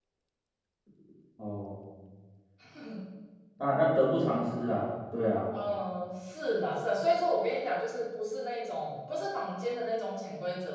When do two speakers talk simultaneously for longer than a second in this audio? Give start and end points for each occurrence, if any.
none

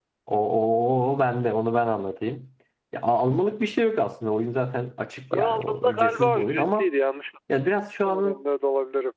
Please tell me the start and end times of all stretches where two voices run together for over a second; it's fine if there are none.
5.3-6.9

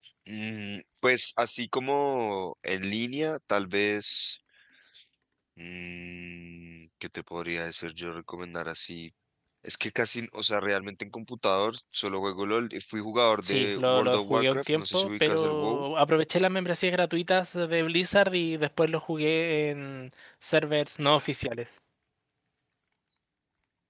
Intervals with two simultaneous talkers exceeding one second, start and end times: 13.4-15.8

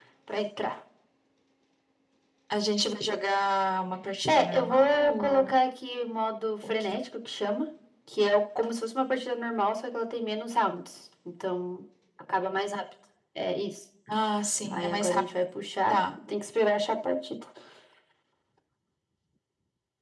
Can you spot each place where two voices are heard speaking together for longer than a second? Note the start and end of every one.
4.3-5.5

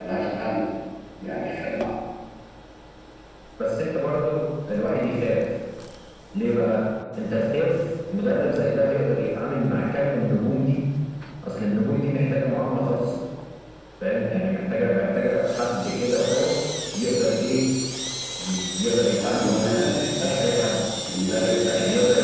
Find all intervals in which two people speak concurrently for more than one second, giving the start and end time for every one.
19.2-20.4

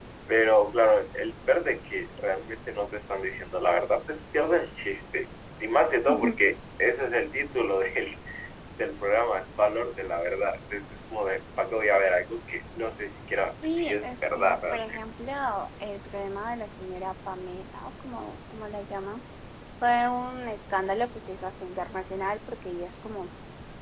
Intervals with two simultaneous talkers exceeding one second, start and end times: 13.7-15.0

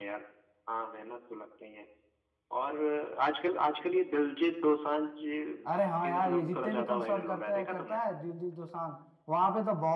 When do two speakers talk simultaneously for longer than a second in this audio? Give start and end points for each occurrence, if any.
6.0-8.0

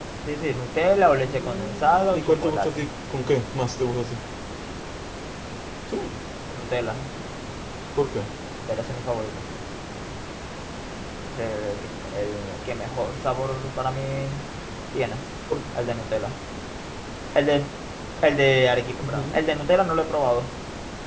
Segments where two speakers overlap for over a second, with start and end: 1.2-2.8

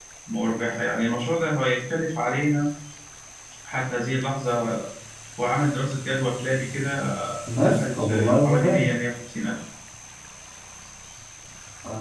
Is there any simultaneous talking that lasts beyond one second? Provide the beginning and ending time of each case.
7.6-8.9

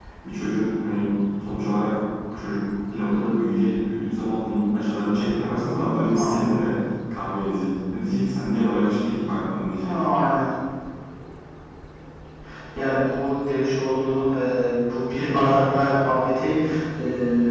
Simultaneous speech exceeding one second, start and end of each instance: none

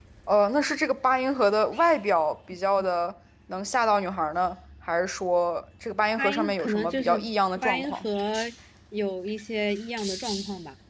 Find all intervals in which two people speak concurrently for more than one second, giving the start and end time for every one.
6.2-8.1

